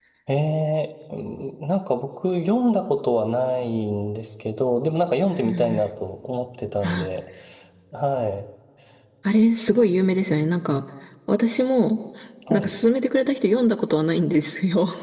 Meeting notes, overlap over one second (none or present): none